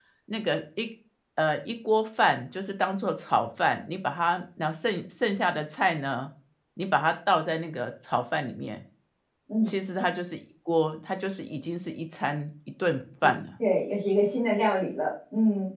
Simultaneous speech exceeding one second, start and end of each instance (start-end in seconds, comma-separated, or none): none